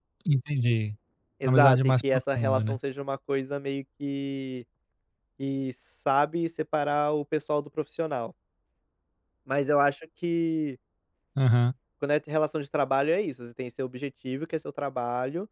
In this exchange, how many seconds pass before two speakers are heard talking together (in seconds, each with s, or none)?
1.4 s